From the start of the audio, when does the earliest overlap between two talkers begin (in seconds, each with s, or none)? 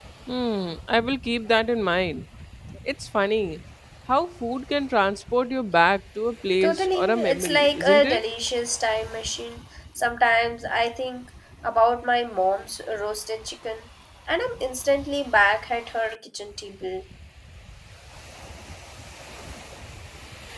6.6 s